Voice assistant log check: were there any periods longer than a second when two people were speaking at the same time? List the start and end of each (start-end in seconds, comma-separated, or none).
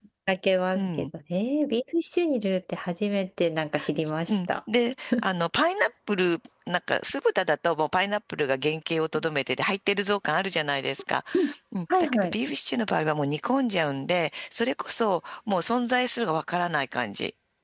none